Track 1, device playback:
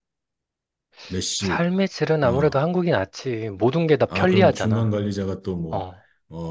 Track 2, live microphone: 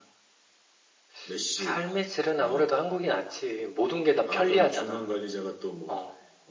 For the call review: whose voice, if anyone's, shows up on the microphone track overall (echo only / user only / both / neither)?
echo only